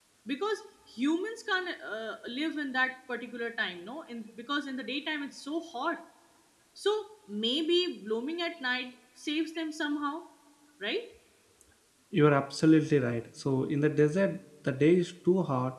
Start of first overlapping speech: none

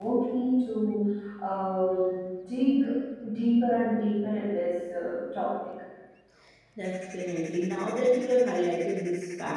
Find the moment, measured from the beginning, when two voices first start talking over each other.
none

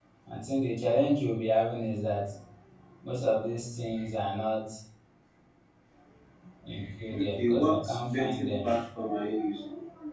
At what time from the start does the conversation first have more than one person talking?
7.1 s

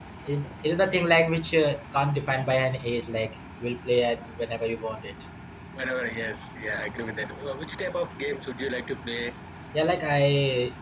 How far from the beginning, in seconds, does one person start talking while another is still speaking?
none

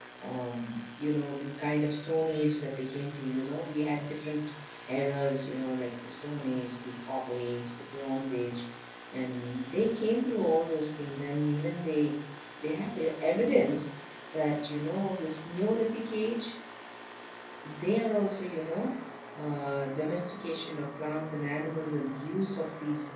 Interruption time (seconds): none

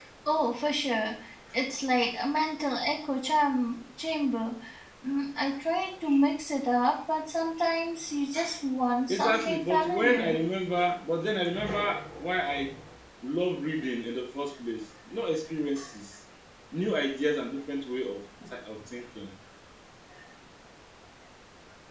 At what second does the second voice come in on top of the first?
9.1 s

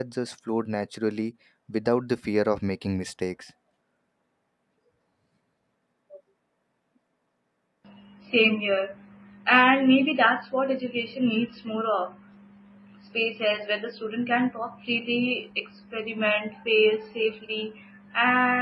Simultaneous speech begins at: none

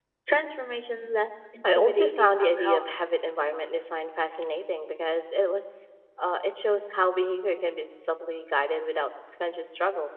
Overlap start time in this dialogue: 1.6 s

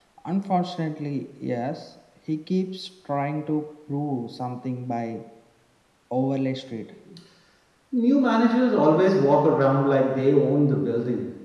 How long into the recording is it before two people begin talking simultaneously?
none

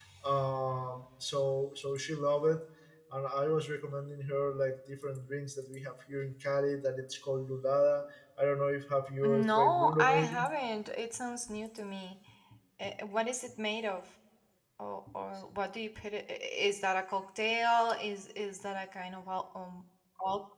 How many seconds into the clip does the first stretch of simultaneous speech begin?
9.2 s

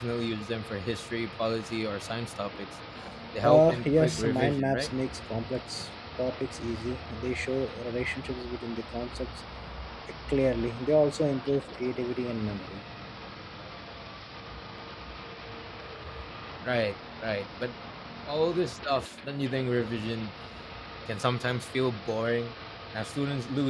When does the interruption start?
3.4 s

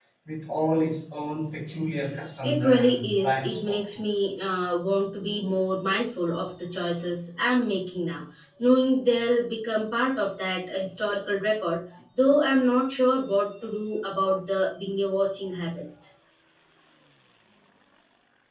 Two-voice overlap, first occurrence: 2.4 s

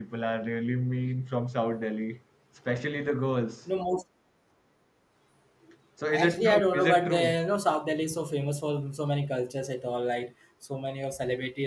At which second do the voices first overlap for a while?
6.1 s

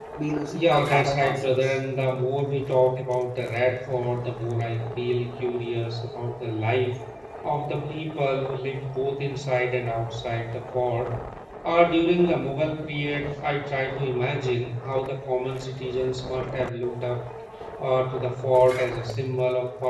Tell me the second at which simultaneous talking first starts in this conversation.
0.5 s

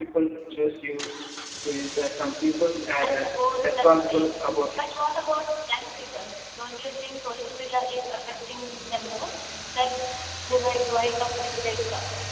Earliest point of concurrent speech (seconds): 3.0 s

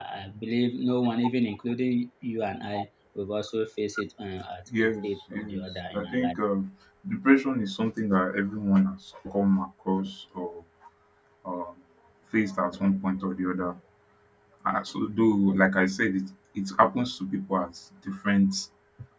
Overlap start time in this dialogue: 4.7 s

